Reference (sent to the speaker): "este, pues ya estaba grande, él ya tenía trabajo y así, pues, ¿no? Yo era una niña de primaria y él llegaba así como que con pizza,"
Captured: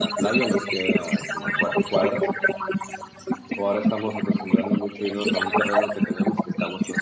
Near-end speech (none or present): present